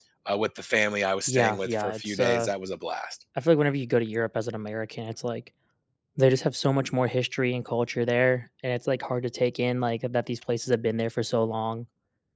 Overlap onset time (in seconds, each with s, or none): 1.3 s